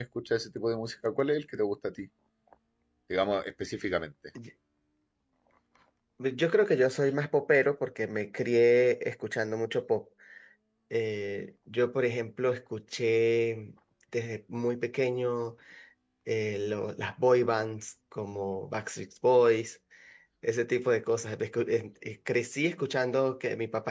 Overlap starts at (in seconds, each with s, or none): none